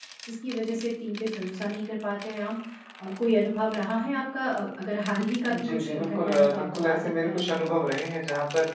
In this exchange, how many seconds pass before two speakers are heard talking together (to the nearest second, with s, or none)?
5 s